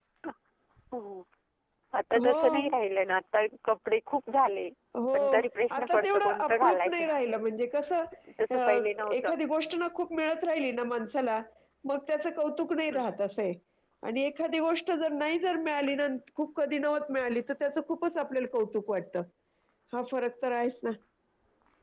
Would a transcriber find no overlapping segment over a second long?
No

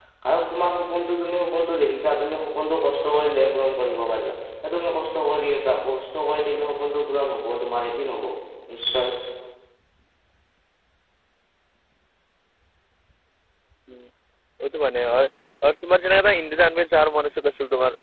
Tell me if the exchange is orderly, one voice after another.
Yes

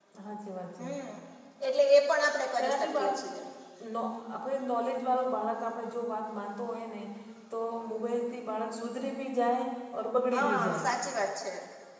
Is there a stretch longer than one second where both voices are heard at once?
No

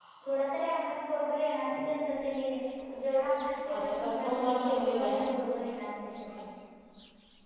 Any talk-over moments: Yes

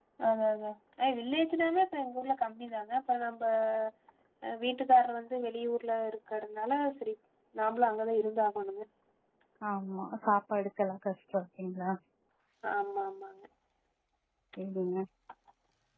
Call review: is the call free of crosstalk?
Yes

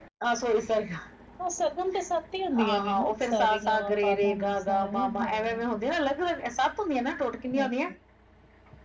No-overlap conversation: No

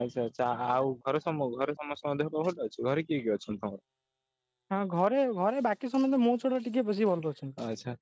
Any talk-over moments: No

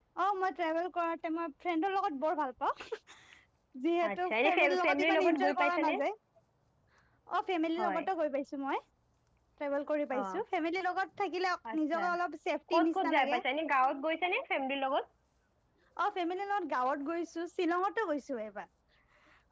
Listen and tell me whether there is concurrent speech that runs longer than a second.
Yes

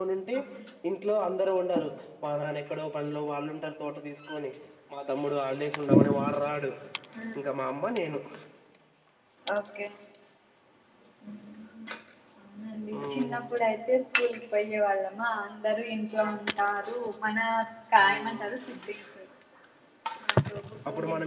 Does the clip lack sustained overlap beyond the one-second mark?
Yes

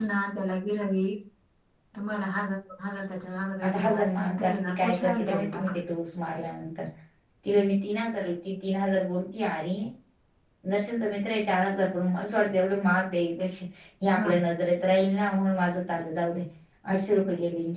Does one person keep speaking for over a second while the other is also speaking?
Yes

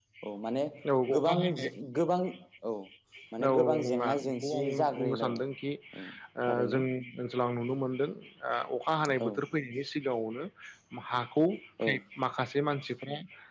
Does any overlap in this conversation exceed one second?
Yes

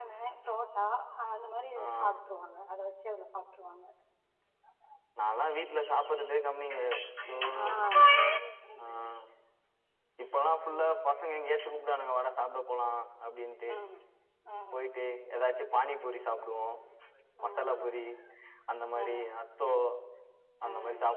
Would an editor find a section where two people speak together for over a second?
No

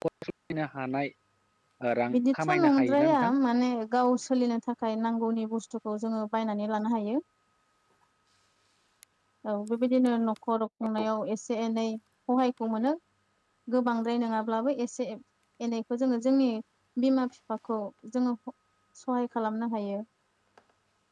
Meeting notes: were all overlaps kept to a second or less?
No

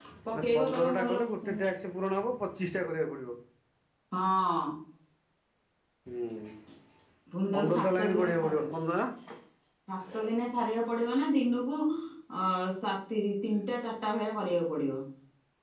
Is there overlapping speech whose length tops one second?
Yes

